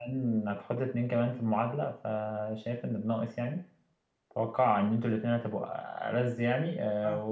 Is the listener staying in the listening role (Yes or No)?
Yes